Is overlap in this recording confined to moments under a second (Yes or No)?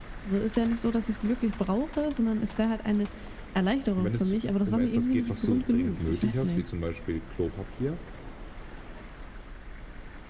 No